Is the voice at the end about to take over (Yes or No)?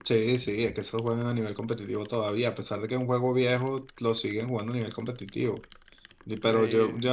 No